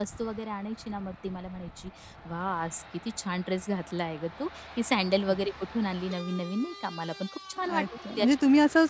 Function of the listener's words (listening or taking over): taking over